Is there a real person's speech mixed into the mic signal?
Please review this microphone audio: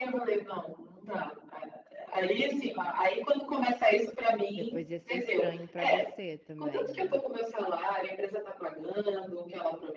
Yes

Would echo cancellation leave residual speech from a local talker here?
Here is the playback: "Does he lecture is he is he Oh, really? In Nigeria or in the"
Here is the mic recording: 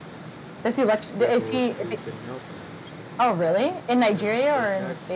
Yes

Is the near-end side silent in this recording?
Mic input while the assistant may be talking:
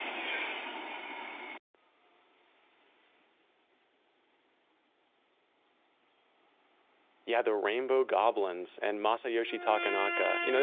No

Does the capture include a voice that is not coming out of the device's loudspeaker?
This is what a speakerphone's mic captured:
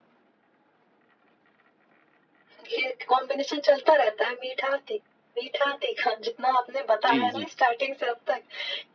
Yes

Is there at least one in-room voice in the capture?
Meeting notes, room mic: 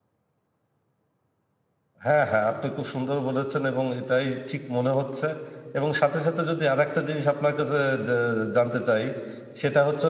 Yes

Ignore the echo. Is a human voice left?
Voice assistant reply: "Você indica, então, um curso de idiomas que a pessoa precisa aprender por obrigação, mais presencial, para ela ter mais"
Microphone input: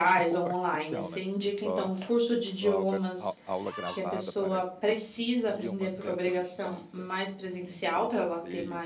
Yes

